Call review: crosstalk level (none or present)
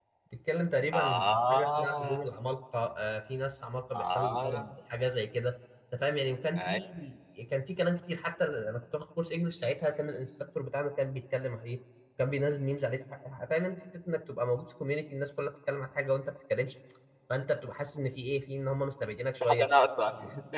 present